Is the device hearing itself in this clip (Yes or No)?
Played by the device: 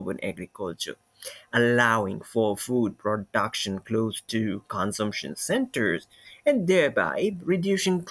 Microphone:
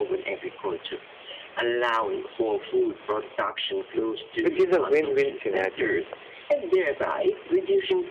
Yes